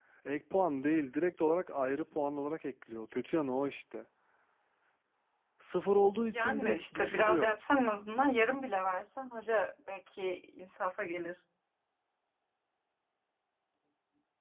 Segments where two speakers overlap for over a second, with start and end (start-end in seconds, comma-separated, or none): 6.3-7.5